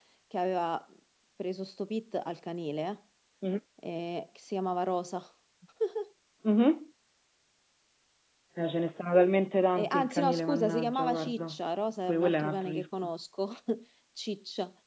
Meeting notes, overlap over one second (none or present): present